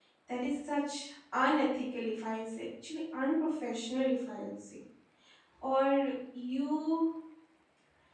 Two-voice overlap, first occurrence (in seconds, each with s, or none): none